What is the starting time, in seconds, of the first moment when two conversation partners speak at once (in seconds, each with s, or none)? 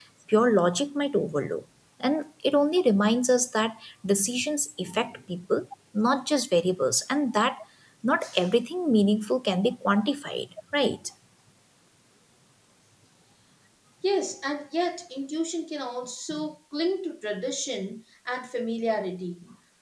none